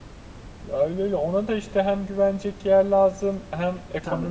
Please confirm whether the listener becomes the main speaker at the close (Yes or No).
No